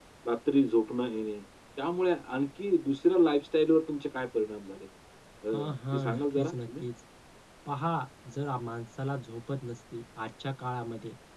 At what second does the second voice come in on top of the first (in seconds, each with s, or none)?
5.5 s